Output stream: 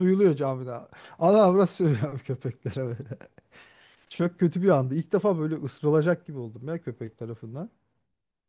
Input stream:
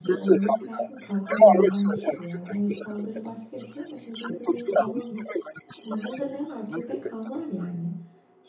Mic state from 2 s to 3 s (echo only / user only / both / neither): both